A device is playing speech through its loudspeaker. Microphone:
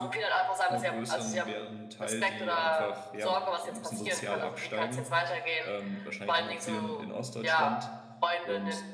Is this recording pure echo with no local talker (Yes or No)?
No